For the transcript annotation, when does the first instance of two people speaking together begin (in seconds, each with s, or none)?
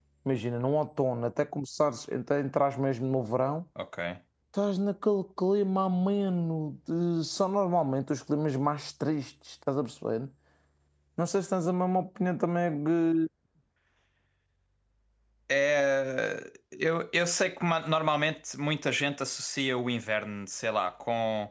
none